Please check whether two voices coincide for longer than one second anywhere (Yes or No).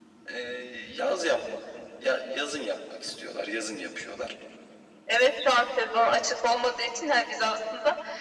No